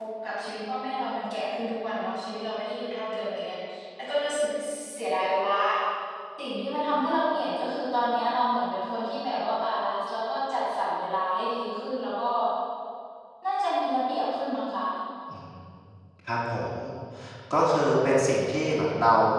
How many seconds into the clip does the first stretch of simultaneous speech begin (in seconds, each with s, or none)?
none